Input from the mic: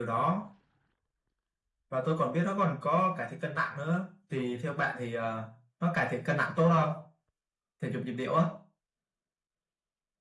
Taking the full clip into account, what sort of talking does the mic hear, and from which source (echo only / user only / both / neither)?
echo only